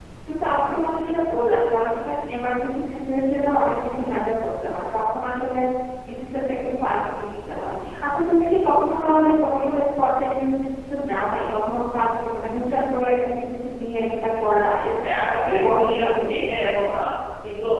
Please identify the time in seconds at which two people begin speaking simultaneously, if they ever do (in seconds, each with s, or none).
15.0 s